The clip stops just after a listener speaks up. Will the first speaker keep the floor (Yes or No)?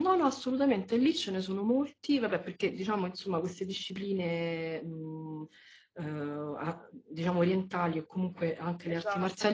Yes